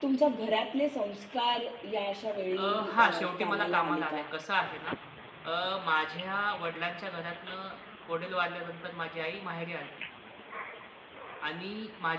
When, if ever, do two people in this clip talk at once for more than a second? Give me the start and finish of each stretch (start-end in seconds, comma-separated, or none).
2.6-4.2